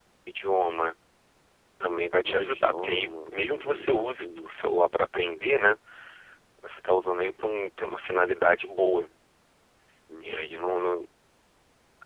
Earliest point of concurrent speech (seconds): 2 s

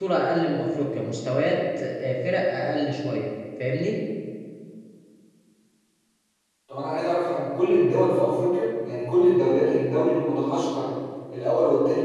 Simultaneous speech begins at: none

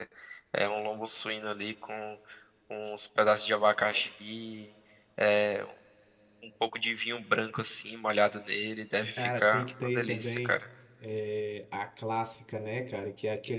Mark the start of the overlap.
9 s

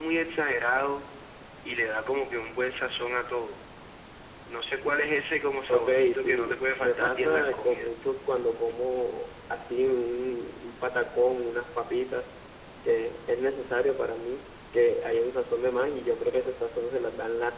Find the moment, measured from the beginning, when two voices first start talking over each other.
6 s

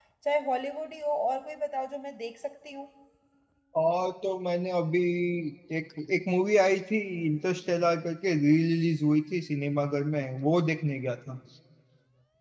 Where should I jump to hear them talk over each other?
none

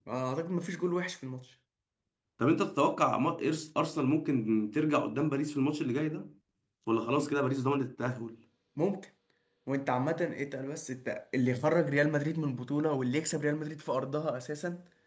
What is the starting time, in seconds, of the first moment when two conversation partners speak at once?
none

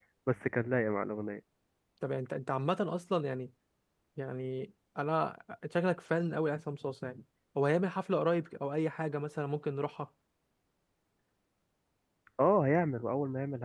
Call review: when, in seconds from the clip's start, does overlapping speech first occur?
none

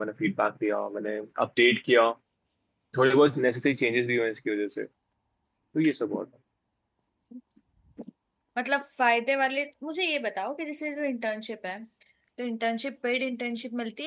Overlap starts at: none

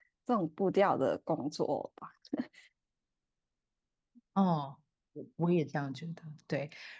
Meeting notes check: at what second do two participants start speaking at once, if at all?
none

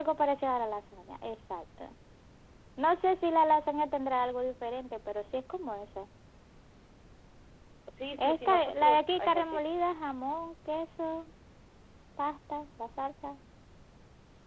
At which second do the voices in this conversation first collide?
8 s

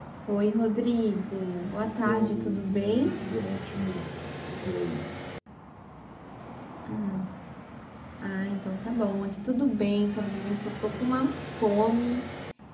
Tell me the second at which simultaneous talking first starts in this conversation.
2 s

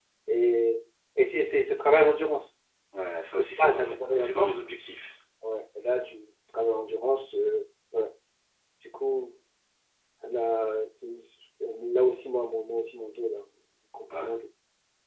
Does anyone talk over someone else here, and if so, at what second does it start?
3 s

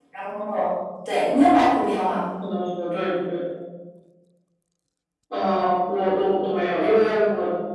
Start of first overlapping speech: none

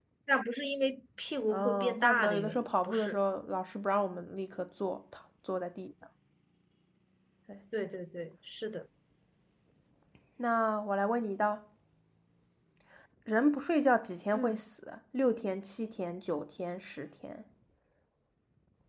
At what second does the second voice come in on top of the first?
1 s

